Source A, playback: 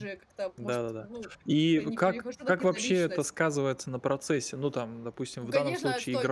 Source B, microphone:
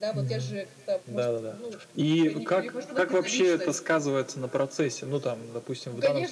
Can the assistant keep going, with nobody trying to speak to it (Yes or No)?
Yes